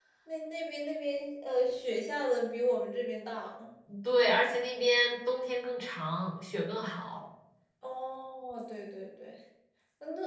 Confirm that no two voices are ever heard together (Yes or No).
Yes